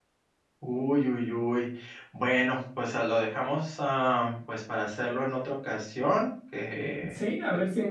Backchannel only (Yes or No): No